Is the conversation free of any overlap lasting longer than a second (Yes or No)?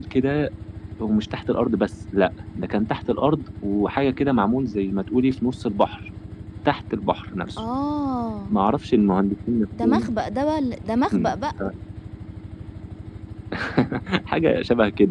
Yes